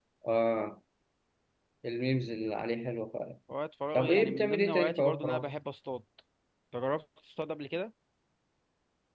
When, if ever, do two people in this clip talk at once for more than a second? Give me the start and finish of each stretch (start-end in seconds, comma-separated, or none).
3.9-5.5